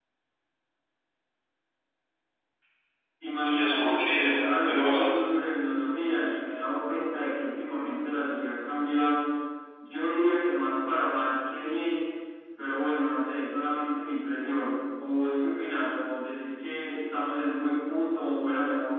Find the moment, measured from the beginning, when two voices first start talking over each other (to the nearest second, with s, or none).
3 s